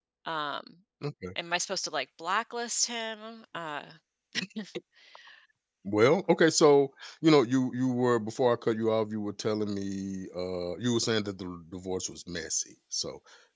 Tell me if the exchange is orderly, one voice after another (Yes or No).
Yes